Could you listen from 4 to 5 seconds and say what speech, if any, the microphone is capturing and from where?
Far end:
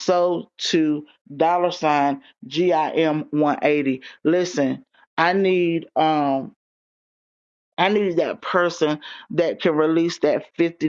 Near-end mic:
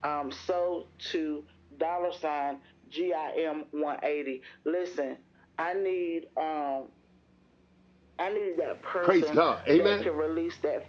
echo only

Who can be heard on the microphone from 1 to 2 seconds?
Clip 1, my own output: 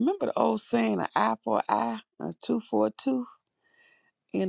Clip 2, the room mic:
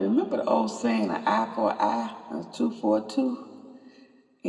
echo only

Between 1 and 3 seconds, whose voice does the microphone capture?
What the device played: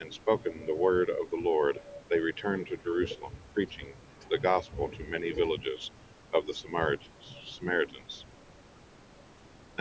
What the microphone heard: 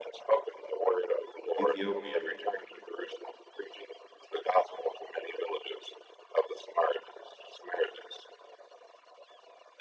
both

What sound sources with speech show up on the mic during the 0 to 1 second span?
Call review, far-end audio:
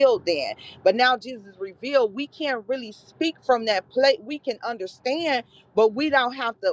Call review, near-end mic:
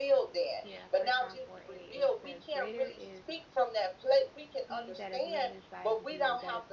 both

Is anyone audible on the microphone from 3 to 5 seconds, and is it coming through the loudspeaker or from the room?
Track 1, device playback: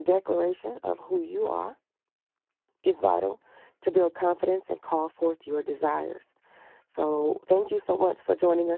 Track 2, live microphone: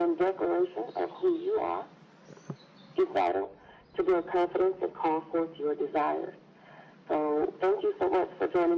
echo only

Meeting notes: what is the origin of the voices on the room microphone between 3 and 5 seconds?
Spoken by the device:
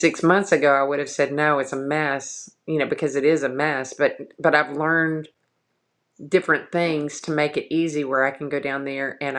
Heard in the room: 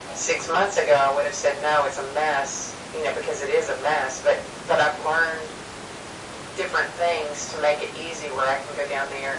echo only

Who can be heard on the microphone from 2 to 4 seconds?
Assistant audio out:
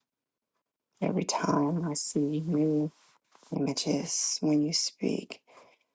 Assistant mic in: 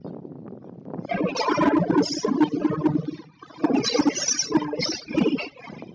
echo only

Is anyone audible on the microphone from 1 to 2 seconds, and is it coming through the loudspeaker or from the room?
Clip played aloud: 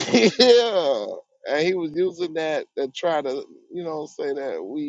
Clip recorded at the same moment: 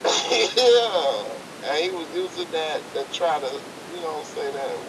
echo only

